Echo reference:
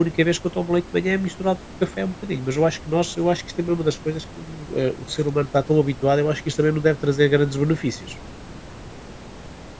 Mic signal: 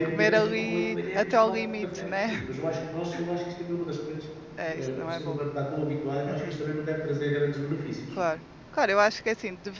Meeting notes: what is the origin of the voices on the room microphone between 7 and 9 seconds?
both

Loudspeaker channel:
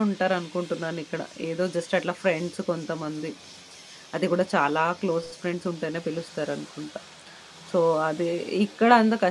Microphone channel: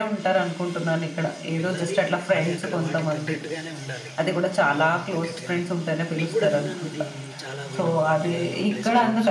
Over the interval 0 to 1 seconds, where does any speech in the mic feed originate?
echo only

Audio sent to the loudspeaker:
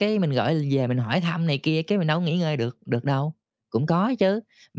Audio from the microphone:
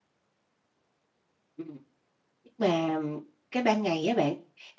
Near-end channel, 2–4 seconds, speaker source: user only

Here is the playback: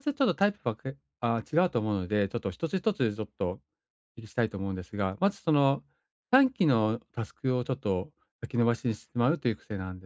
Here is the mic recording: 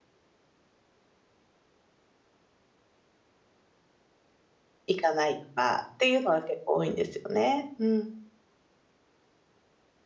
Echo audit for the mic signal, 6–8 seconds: user only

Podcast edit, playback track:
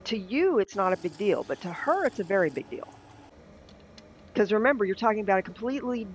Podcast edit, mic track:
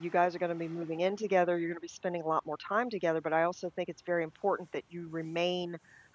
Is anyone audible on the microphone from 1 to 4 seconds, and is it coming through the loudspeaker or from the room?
user only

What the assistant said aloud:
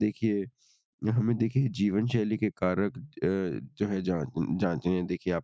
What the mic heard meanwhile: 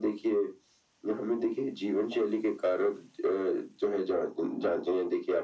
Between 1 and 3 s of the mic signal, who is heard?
echo only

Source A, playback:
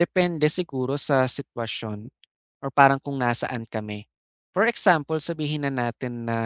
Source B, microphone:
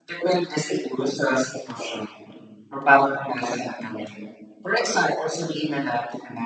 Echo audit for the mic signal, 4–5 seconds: echo only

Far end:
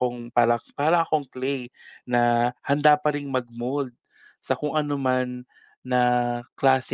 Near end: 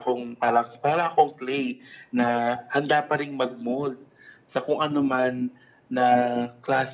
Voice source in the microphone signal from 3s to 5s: echo only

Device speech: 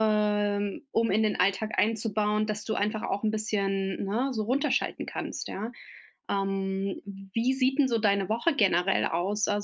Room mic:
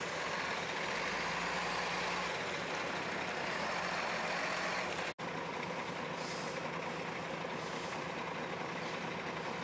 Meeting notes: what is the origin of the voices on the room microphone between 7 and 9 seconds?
neither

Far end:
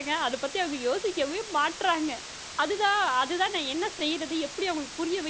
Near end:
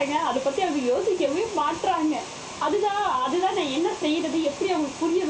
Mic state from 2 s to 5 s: echo only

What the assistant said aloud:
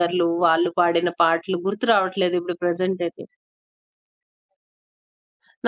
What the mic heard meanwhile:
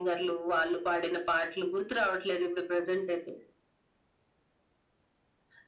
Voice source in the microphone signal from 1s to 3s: echo only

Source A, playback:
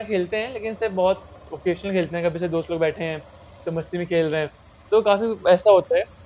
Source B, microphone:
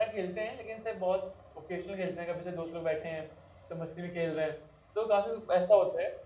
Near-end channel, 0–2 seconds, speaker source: echo only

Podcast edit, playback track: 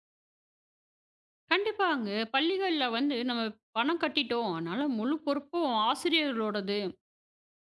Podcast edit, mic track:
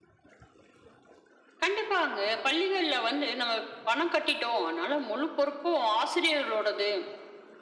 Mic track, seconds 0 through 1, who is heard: neither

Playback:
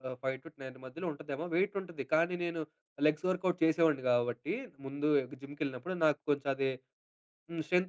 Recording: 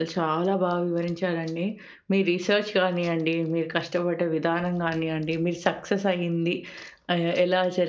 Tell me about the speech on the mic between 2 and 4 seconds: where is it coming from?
user only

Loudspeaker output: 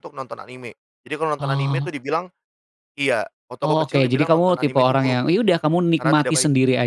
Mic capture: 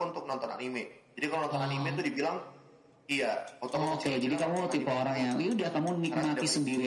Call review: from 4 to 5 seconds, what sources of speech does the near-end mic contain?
echo only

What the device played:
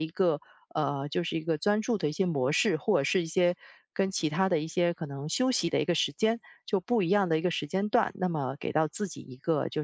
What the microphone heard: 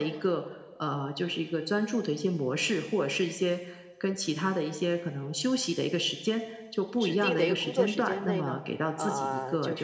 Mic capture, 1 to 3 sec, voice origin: echo only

